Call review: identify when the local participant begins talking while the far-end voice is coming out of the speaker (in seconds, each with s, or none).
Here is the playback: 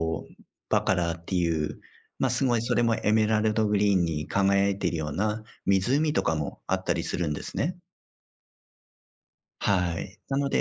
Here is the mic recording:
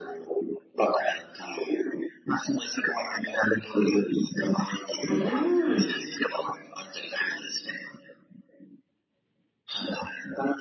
5.1 s